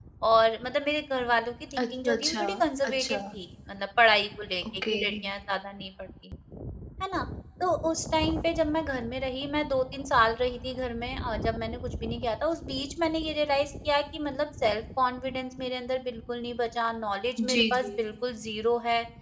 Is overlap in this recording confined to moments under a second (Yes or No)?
No